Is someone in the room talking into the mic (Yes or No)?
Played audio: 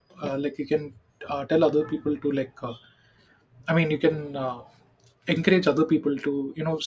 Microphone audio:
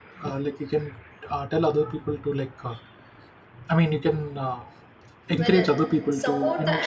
Yes